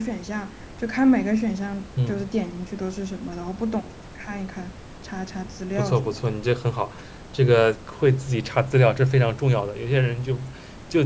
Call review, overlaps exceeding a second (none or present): none